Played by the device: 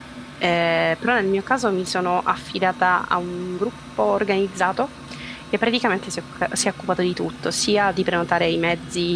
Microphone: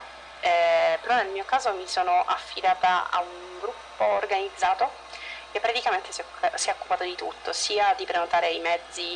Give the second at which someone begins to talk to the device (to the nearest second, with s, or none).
none